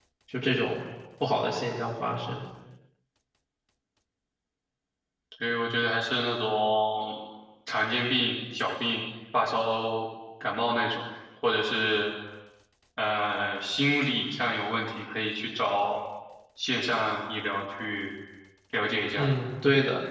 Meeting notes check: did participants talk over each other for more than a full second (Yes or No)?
No